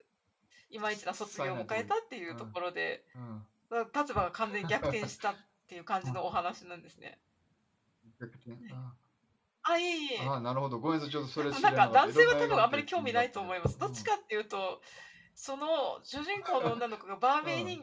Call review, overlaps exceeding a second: present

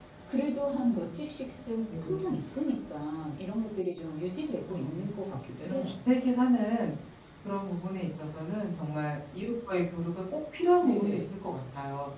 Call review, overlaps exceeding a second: none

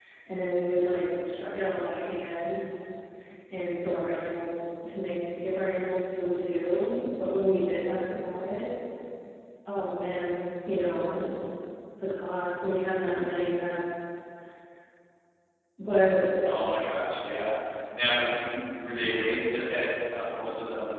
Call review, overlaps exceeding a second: none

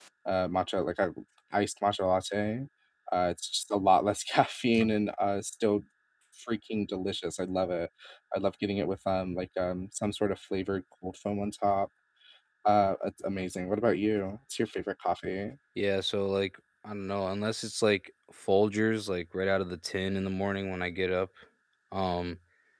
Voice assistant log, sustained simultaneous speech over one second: none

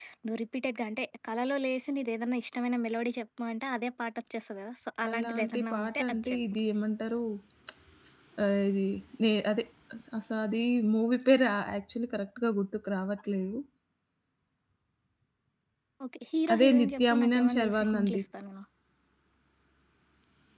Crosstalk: present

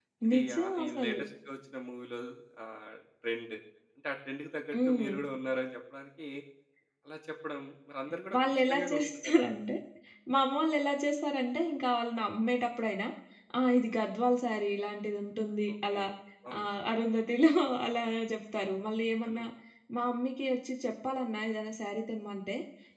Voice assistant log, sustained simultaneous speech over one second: present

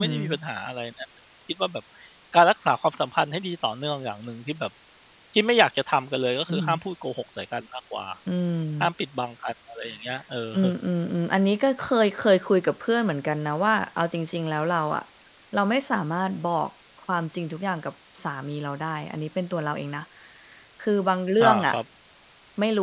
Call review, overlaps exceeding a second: none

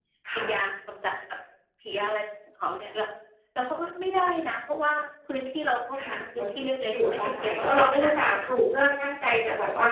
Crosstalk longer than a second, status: present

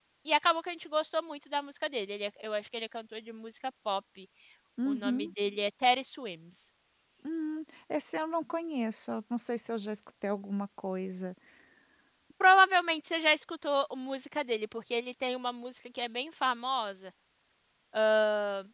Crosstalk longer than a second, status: none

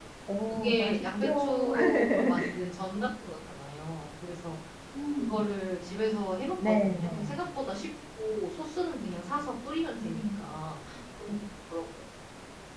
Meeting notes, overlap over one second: present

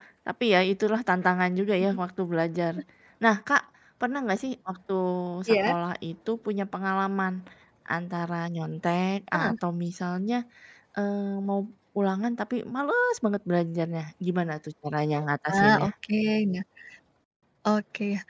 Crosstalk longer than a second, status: none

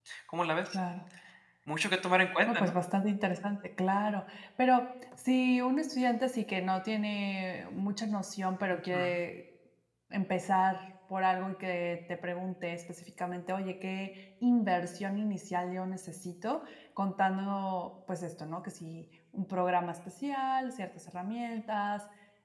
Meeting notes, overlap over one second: none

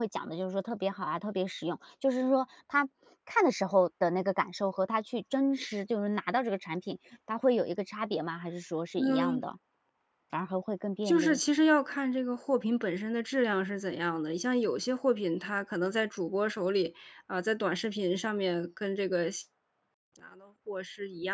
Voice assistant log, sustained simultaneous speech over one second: none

